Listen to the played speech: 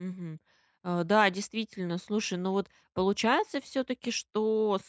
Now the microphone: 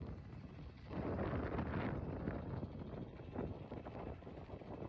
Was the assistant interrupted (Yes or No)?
No